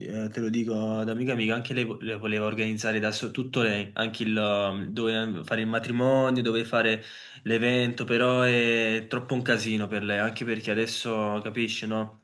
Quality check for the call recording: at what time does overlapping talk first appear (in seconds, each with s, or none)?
none